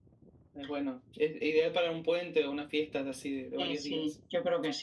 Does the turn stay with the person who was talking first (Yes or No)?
No